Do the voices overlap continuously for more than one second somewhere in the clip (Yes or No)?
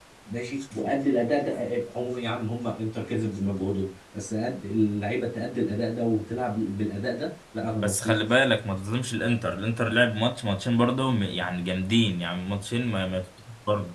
No